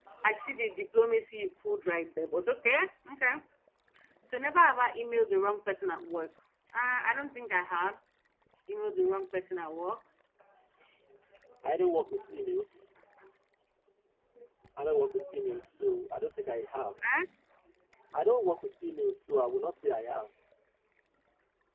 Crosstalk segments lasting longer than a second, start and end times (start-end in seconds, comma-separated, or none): none